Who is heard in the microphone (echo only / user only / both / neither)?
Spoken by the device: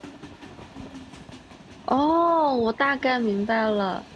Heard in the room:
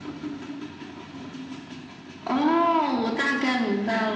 echo only